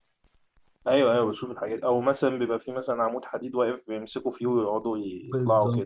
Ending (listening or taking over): taking over